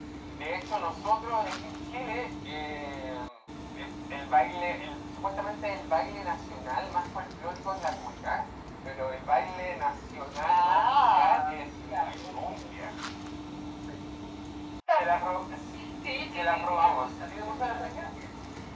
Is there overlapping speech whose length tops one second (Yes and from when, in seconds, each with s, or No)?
Yes, from 10.4 s